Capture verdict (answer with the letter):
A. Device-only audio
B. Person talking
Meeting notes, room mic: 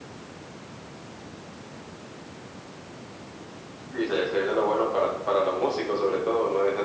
A